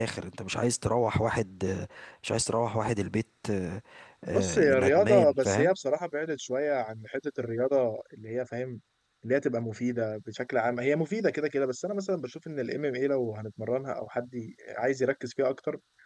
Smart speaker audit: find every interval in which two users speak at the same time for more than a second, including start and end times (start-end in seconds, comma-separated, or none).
4.2-5.7